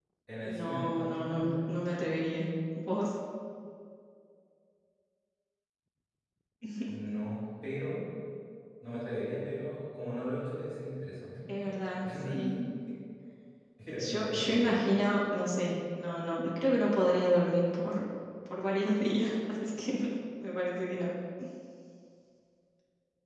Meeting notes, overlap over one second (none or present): present